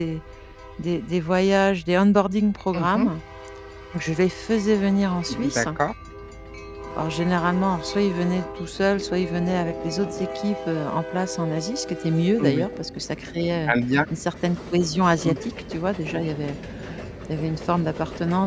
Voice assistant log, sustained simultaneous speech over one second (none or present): none